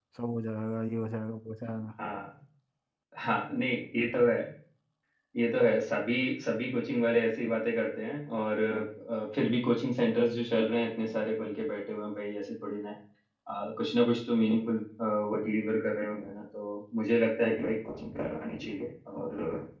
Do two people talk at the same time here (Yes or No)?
No